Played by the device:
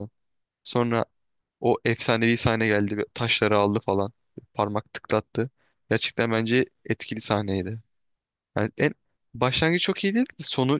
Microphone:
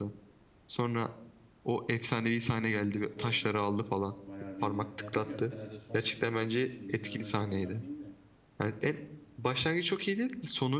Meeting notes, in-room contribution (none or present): present